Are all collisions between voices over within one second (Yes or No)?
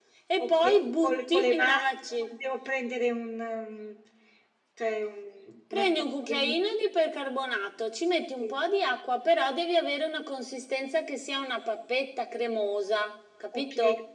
No